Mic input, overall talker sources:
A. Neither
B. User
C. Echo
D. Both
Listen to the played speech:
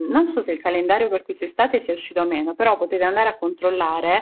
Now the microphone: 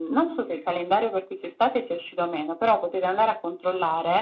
C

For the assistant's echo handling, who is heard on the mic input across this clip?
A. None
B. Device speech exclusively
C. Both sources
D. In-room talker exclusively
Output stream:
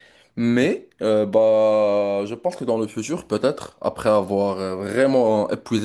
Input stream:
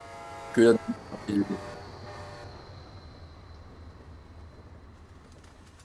D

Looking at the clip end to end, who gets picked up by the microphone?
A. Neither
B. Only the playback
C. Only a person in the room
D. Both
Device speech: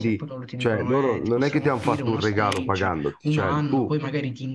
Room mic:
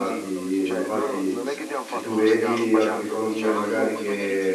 D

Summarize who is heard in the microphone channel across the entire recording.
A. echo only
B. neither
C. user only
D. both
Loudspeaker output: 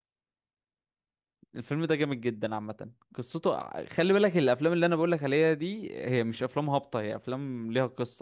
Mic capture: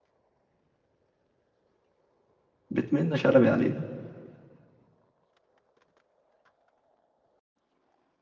C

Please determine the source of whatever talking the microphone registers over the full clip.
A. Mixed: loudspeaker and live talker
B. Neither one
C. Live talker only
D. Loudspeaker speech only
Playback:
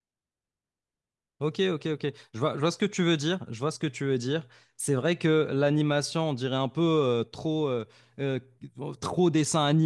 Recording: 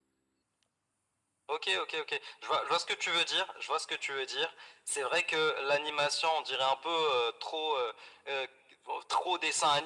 D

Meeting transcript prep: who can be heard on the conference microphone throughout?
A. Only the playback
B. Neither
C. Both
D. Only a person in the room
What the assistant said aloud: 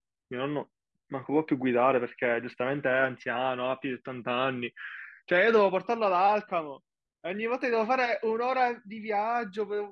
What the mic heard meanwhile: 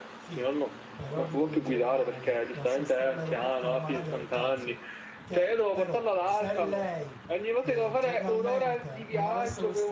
C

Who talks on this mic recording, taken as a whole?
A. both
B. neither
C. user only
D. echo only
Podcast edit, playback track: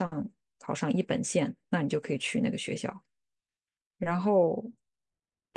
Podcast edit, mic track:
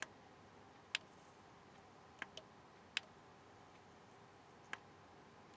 B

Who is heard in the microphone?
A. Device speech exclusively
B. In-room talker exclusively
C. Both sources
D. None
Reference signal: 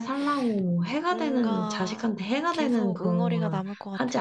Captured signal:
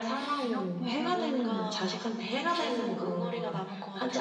C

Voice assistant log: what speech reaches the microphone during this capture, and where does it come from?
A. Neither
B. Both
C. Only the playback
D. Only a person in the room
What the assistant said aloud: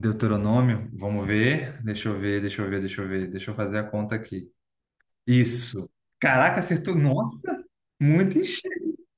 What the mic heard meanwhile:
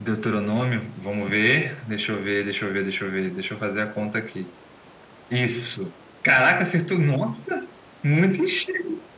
C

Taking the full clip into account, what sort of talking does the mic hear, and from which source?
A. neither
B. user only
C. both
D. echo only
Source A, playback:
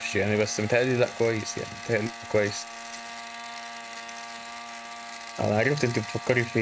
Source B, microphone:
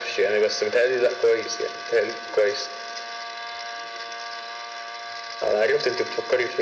D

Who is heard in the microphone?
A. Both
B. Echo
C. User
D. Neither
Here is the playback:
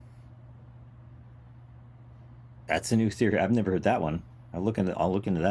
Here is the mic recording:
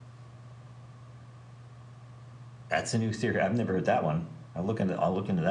B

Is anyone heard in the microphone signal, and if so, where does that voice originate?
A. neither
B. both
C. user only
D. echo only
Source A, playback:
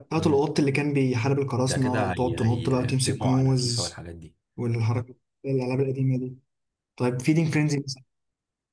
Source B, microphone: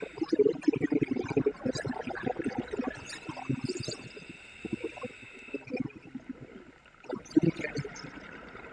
D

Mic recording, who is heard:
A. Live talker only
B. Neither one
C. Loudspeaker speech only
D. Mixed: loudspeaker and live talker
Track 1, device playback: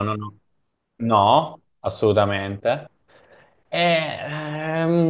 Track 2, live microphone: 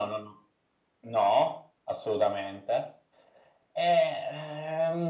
C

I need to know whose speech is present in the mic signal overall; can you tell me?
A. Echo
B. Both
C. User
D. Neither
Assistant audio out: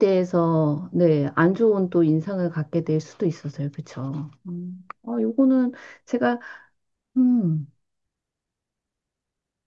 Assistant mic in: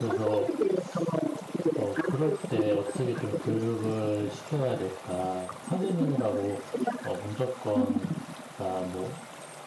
B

